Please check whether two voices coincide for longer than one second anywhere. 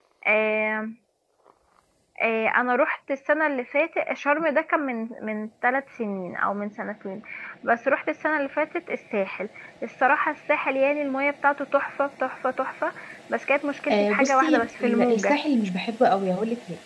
Yes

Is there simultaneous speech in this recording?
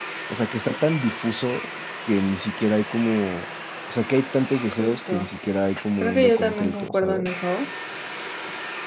Yes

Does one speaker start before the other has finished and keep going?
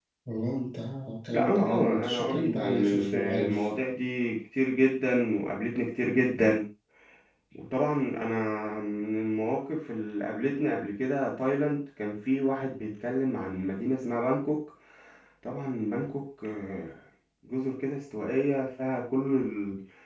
Yes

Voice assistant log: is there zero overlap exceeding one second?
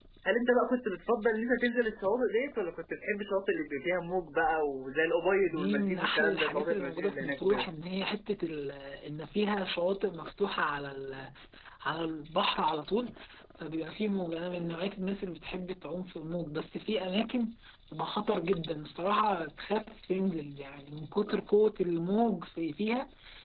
No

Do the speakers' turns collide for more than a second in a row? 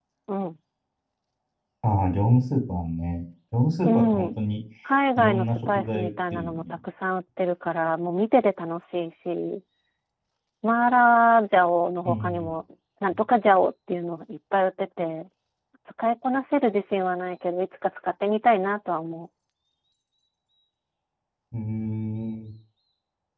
Yes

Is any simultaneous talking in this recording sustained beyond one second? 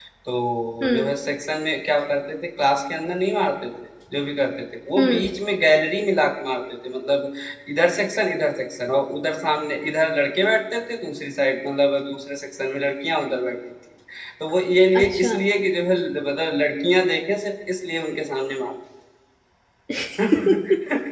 No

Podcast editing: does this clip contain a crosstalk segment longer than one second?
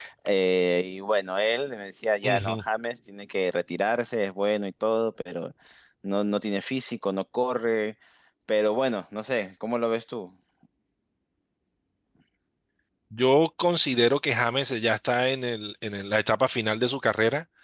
No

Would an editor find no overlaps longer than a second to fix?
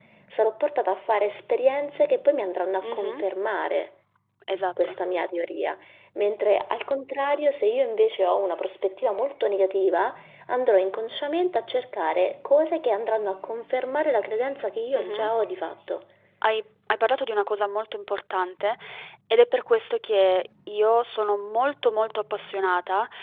Yes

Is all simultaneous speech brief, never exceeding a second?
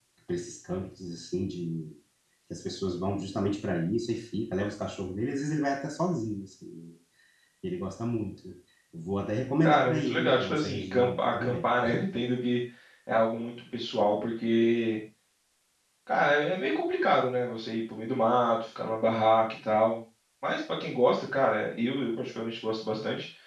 No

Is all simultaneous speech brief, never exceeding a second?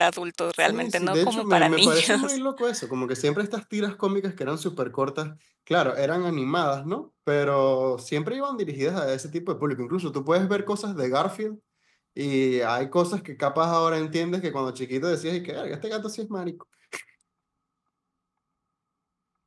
No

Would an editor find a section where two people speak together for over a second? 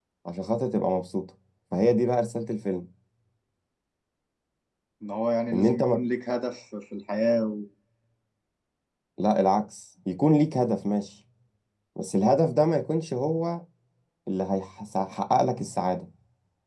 No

